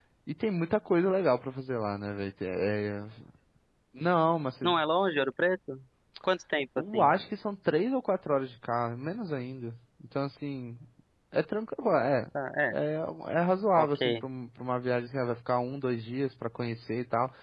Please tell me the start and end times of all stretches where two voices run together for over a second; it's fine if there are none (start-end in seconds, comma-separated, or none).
none